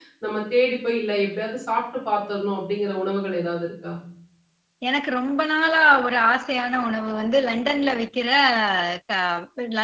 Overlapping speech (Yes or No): No